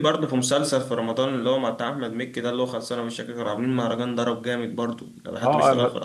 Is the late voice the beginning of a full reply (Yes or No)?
Yes